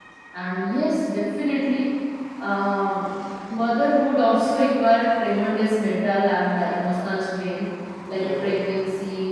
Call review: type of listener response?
listening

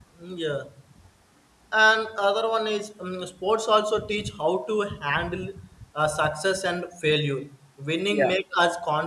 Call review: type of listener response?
listening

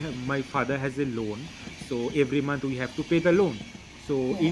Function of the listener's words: listening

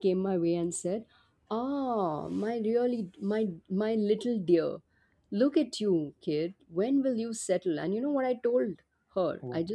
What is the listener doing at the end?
listening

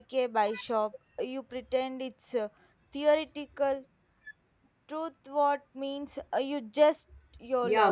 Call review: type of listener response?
taking over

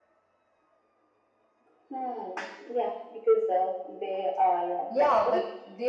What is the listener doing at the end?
taking over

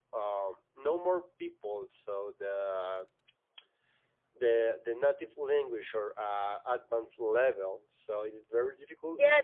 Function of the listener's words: taking over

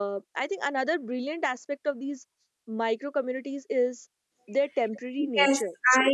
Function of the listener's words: taking over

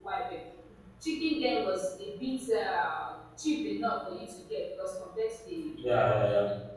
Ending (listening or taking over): listening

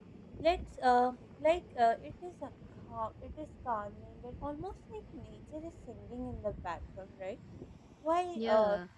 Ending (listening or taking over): listening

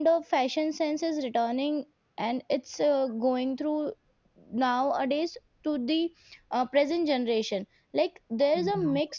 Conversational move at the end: listening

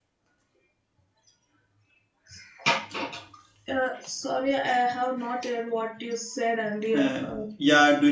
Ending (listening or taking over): taking over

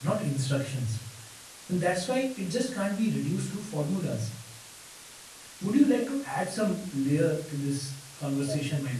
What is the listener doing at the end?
taking over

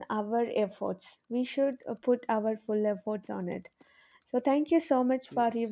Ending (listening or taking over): listening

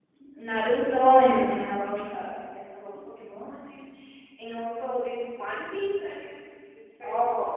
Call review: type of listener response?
taking over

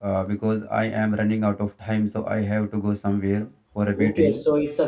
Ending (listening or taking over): taking over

